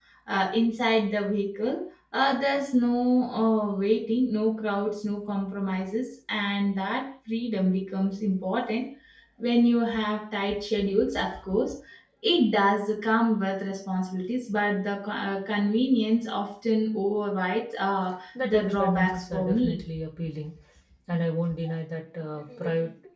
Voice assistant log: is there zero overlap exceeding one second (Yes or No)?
No